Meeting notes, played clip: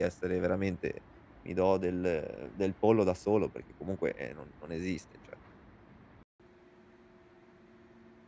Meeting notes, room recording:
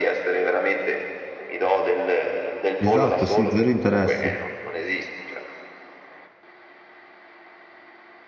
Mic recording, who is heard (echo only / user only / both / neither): both